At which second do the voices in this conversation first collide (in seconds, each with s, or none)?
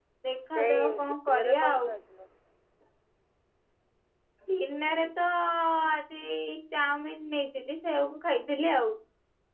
0.6 s